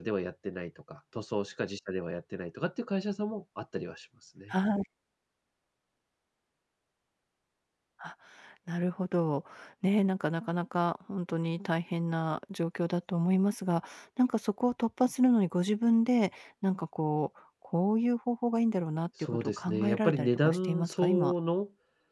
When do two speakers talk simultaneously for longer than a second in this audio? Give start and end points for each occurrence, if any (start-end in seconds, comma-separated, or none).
19.2-21.3